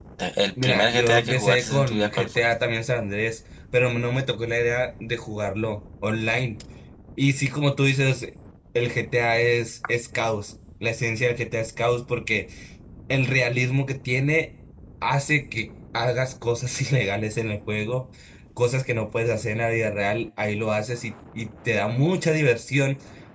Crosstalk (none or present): present